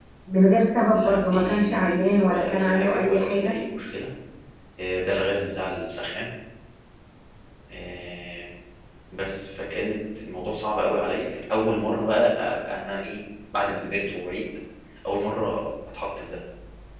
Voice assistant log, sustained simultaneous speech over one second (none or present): present